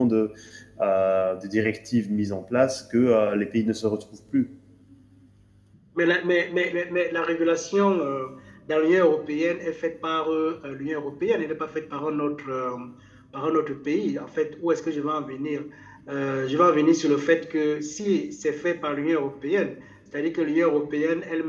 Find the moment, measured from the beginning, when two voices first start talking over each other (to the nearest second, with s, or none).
none